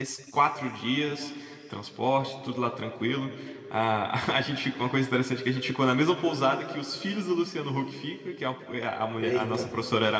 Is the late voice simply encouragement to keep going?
Yes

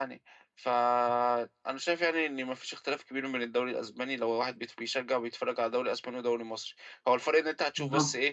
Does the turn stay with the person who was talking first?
Yes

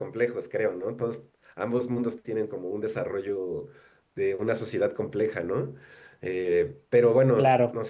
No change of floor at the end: Yes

